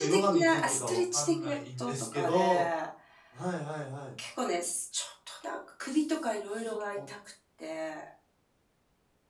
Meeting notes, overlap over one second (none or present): present